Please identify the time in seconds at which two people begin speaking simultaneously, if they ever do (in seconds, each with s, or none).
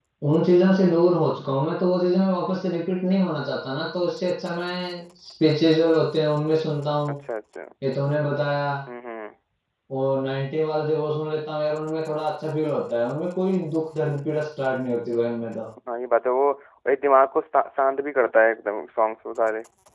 none